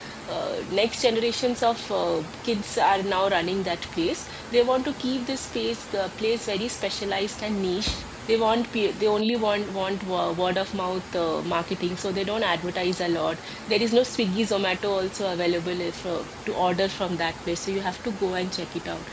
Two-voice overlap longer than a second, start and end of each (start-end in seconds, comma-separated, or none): none